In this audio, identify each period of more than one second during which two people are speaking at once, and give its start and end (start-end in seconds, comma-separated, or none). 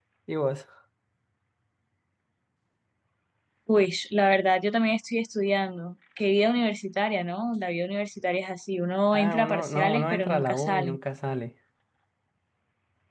9.1-11.0